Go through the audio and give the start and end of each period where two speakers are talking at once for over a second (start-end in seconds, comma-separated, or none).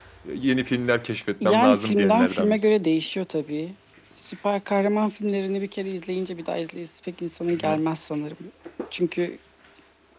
1.4-2.7